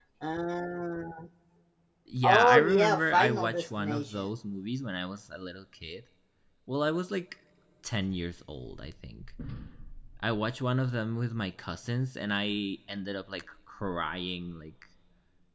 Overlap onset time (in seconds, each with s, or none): 2.2 s